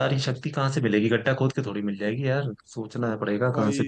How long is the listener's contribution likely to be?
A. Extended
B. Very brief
A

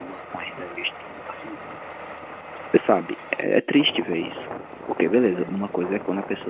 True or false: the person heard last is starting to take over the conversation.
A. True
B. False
B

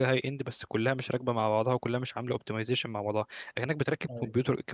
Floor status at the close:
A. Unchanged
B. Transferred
A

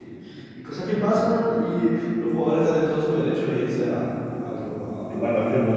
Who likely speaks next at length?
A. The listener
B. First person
A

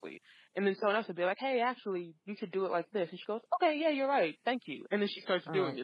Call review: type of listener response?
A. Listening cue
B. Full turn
B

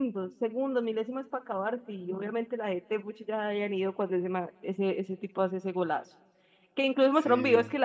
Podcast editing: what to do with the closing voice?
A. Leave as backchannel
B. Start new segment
A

